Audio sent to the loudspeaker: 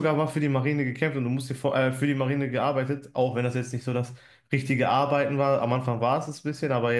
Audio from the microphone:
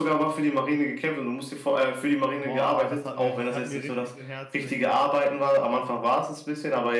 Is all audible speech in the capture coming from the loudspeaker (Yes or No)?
No